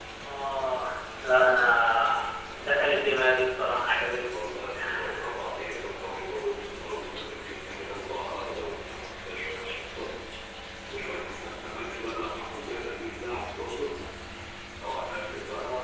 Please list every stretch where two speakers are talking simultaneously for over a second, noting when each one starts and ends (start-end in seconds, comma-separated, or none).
none